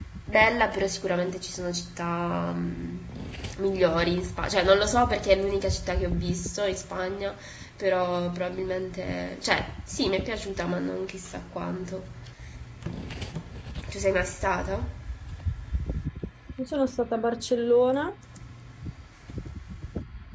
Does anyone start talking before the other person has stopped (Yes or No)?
No